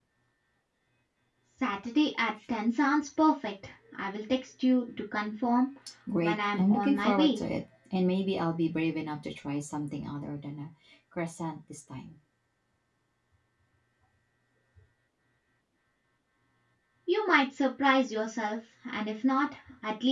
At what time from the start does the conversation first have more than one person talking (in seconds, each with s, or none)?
6.2 s